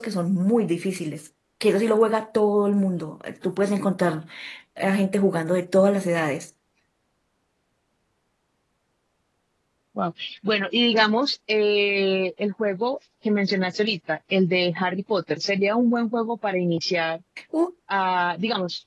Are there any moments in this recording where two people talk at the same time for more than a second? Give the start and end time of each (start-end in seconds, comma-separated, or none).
none